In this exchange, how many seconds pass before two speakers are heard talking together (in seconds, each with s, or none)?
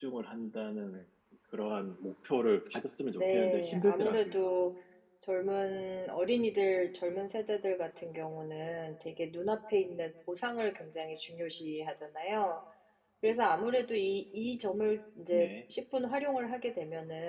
3.1 s